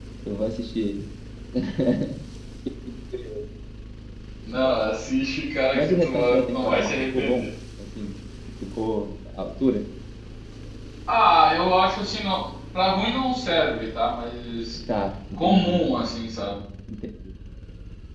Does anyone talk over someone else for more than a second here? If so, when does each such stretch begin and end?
5.7-7.5

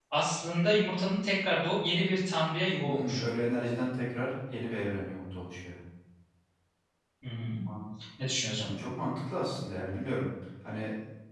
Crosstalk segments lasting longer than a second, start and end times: none

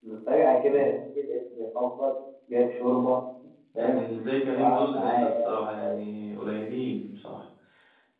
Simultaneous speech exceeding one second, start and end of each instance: 4.5-6.0

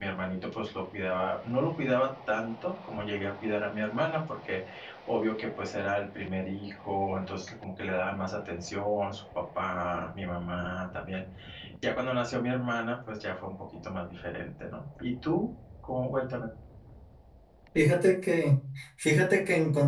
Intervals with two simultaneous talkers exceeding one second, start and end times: none

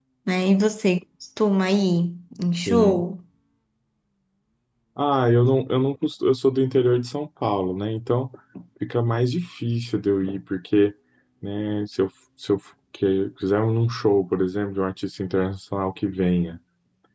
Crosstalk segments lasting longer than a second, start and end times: none

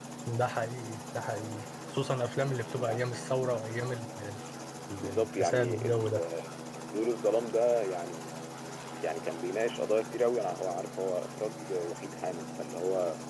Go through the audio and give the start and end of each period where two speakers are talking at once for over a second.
5.0-6.2

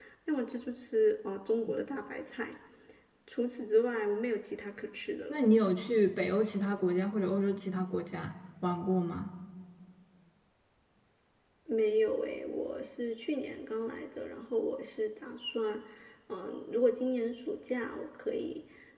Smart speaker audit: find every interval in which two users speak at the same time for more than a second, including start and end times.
none

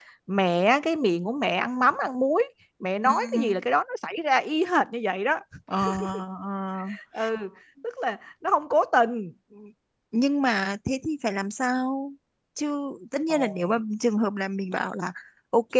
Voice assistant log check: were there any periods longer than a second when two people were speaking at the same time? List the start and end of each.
none

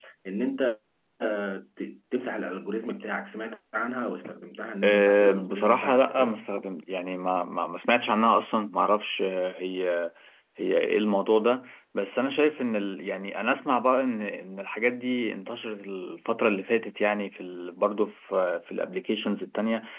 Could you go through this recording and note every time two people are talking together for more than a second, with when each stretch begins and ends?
4.8-6.3

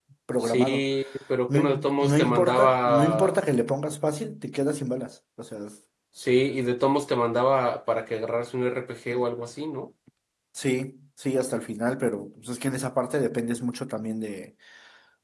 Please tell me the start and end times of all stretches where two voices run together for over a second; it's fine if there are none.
1.5-3.4

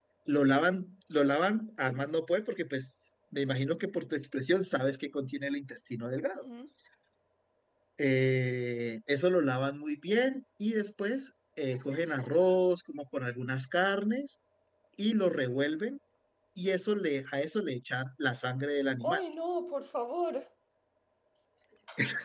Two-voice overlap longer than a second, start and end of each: none

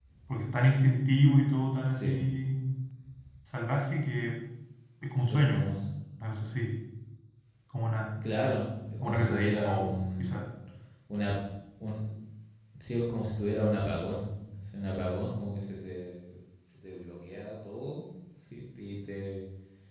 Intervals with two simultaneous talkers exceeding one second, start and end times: 9.0-10.3

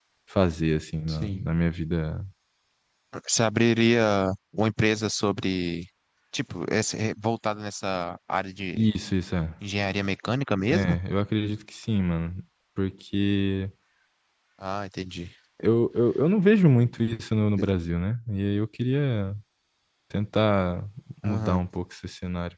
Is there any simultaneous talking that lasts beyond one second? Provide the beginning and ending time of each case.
none

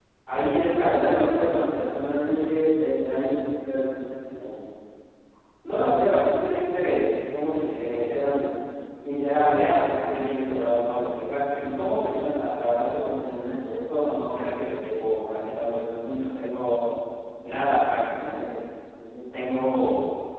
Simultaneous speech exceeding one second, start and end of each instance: 0.6-1.9

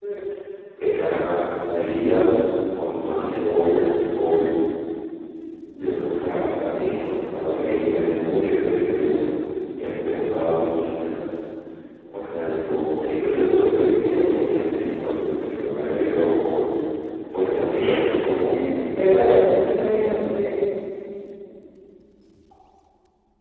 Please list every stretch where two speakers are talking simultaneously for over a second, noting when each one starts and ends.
18.4-20.2

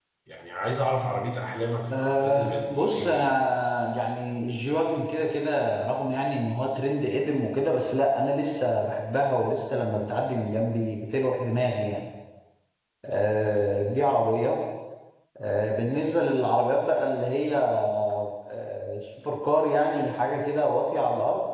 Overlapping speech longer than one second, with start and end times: 1.9-3.3

